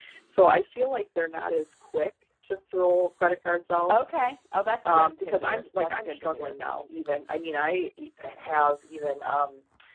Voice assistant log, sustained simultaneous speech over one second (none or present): present